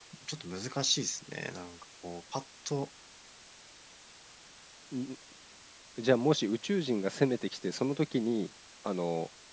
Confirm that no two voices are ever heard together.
Yes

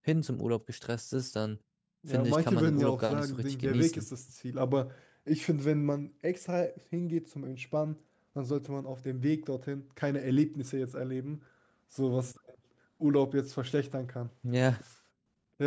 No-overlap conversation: No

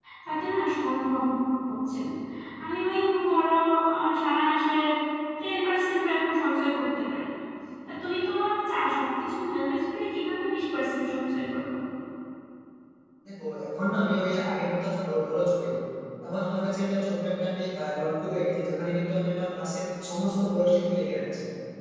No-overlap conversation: Yes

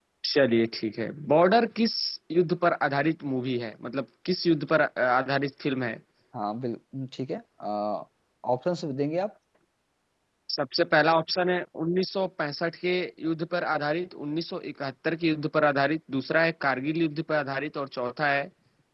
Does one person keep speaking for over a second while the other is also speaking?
No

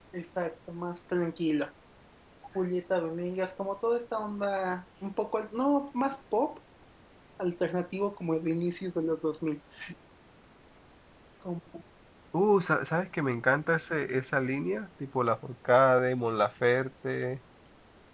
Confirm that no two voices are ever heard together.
Yes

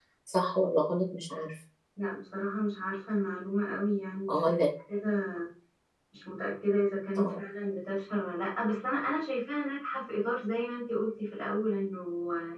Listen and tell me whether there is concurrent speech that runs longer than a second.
No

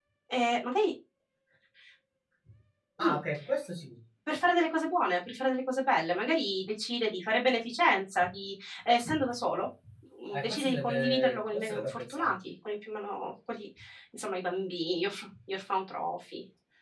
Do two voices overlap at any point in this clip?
Yes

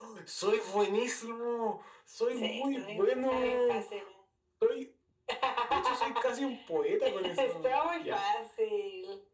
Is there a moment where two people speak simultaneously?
Yes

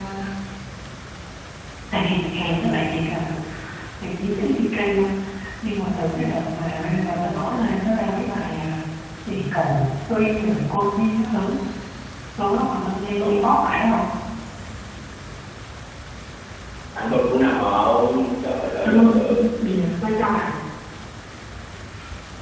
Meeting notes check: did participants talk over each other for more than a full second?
No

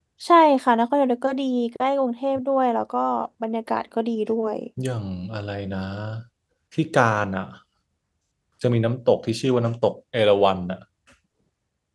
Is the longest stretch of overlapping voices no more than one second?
Yes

